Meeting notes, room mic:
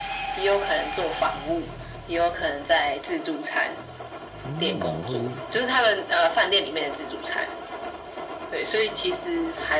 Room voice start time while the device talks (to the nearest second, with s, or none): 4 s